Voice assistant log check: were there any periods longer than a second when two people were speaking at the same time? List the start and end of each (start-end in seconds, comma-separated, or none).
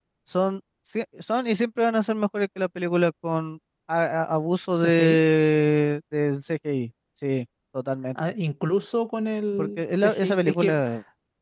9.6-10.8